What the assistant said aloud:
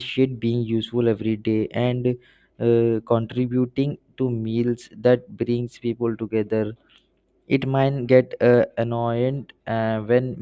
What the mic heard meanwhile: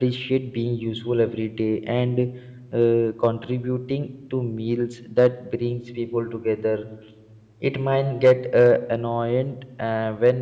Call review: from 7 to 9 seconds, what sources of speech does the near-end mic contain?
echo only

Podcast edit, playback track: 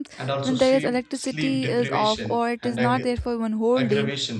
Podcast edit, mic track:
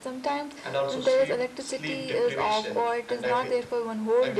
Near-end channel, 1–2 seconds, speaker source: echo only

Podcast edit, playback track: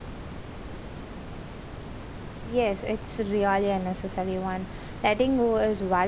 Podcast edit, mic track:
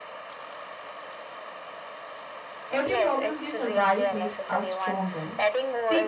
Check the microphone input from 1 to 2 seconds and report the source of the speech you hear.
neither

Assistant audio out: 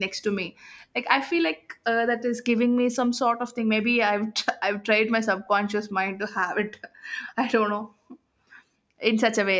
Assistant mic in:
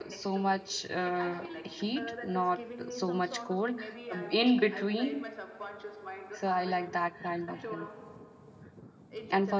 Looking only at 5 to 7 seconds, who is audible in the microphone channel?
both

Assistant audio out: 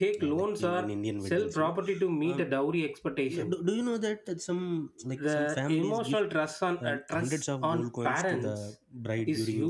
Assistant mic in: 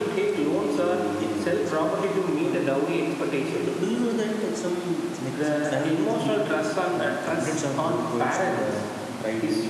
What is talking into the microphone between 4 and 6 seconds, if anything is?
echo only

